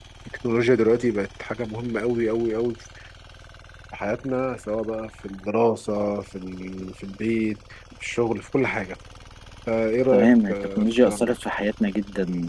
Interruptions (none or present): present